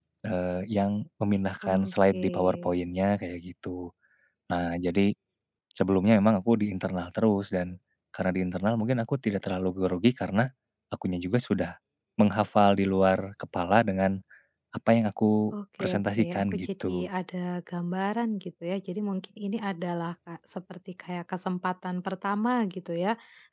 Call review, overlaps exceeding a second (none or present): present